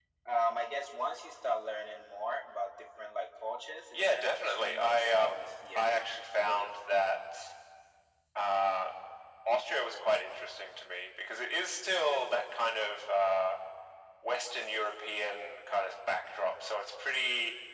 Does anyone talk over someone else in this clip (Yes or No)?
Yes